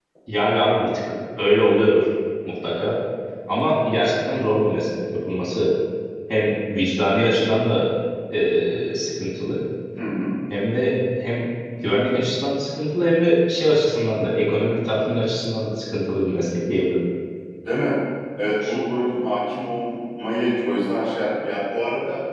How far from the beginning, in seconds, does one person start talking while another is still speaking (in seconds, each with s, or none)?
none